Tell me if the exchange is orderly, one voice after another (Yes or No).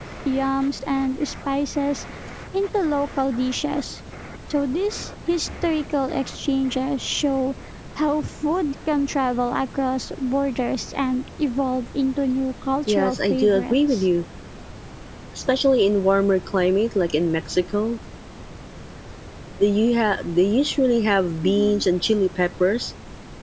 No